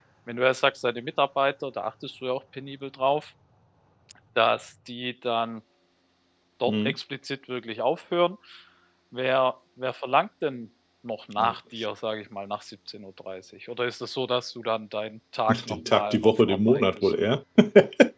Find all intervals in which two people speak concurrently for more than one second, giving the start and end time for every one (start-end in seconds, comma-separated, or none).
15.5-17.1